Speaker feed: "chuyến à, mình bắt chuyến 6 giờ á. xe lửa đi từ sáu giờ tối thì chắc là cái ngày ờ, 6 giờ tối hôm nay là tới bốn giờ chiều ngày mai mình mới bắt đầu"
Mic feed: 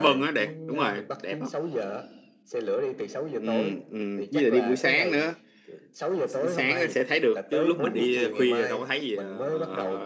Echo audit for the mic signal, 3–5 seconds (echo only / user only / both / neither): both